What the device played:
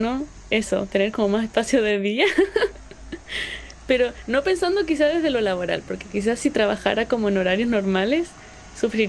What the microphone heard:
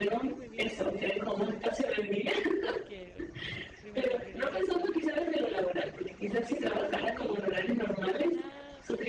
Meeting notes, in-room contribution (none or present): present